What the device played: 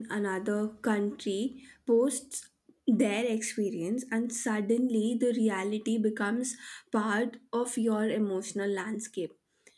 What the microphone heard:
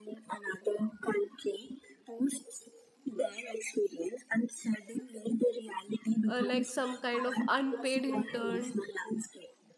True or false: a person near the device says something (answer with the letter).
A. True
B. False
A